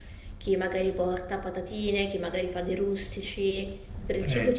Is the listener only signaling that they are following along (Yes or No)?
No